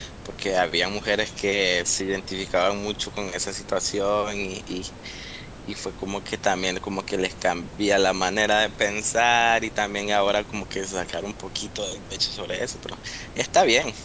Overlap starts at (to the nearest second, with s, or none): none